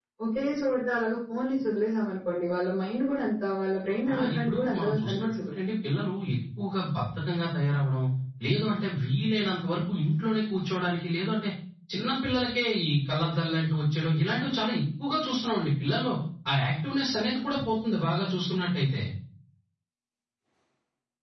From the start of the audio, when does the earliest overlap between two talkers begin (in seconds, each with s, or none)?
4.0 s